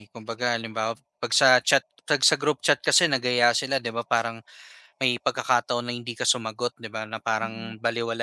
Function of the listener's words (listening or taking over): listening